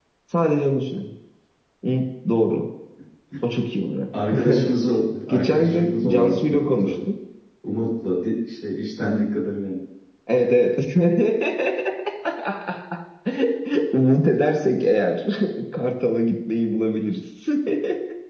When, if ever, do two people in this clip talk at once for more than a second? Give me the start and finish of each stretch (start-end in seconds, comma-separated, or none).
5.3-6.9